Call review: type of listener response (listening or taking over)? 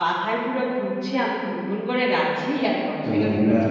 taking over